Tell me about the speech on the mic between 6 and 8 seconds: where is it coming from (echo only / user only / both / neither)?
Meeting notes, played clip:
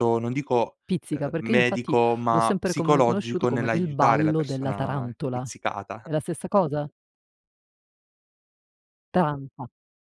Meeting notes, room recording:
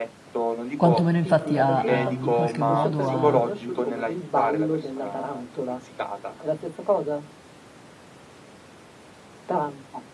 echo only